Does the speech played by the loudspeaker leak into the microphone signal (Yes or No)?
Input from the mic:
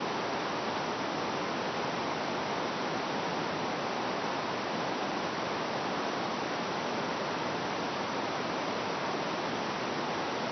No